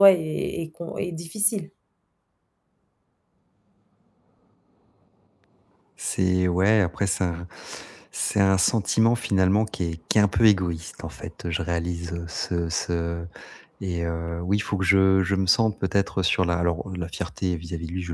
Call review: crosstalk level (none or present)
none